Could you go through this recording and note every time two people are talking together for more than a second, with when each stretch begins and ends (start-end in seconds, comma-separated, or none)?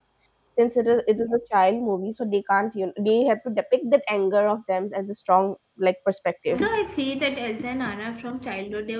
none